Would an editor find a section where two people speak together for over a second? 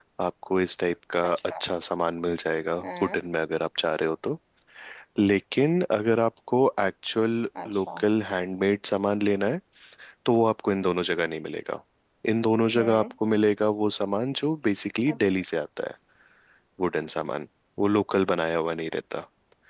No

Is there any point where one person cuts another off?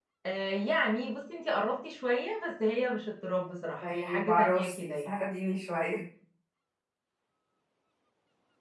Yes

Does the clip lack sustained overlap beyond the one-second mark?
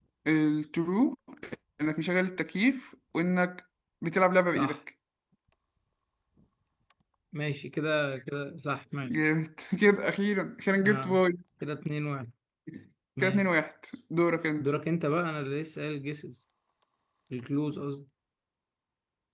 Yes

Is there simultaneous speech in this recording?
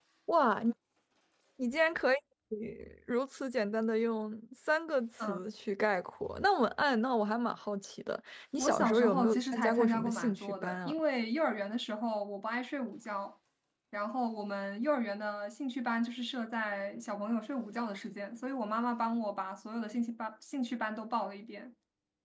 Yes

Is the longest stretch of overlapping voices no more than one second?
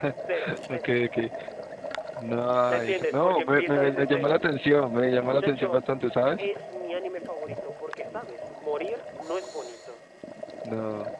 No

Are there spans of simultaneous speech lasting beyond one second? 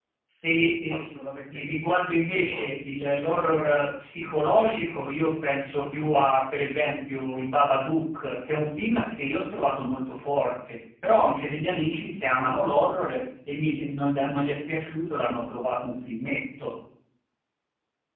Yes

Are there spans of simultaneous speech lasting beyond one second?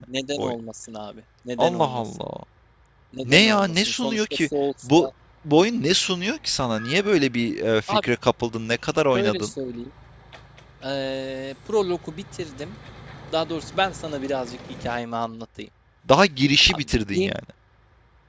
Yes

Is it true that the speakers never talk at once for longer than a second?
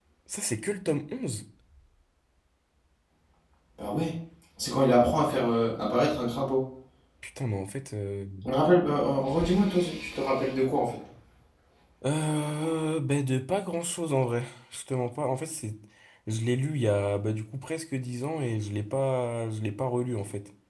Yes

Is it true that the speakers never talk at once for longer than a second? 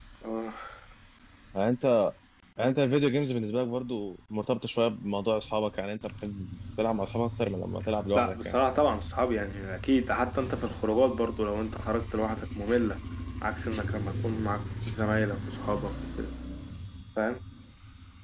Yes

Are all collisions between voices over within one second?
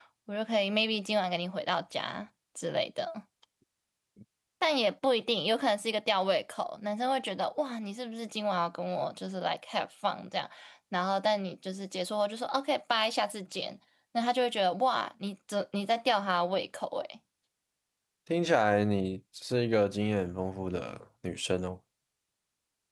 Yes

